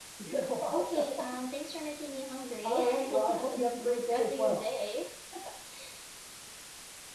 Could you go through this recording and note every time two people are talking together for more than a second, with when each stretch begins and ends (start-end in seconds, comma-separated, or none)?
2.6-4.7